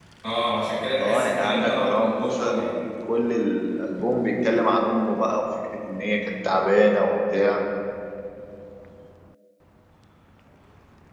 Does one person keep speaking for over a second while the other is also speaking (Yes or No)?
Yes